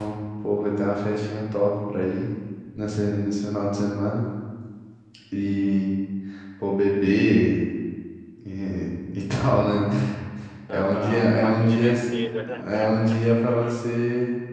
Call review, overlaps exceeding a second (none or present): present